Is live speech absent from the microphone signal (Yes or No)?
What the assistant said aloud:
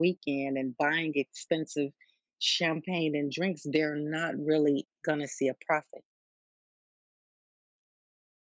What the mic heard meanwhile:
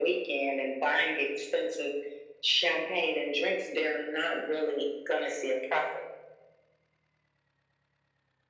Yes